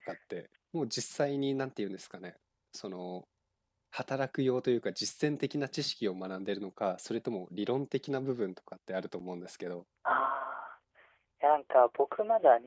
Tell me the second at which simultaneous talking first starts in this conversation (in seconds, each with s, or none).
none